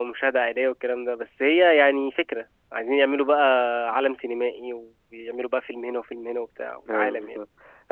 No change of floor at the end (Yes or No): No